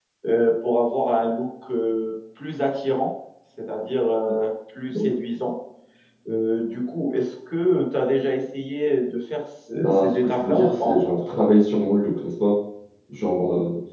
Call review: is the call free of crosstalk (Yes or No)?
No